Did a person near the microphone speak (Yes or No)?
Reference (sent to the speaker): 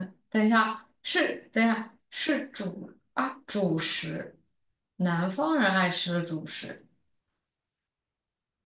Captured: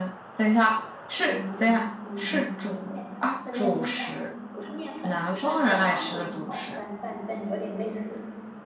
Yes